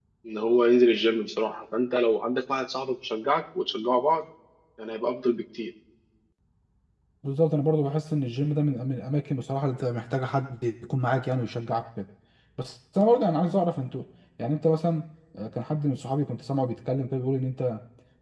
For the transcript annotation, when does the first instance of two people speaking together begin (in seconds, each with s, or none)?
none